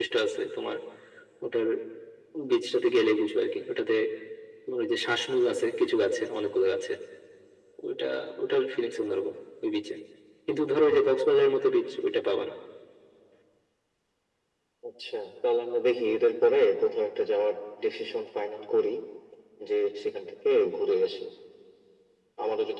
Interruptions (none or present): none